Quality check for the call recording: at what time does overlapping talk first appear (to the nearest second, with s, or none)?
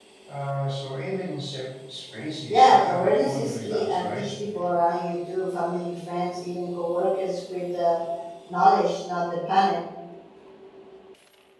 2 s